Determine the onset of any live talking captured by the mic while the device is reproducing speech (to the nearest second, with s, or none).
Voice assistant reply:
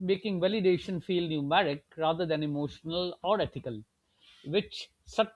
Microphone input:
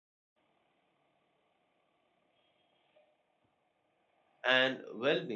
4 s